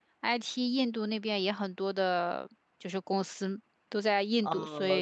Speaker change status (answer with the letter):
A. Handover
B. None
A